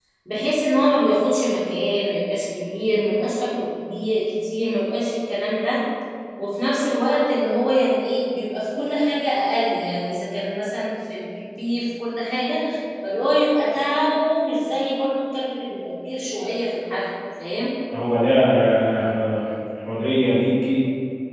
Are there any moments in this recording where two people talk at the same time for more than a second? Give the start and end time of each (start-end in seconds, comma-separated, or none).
none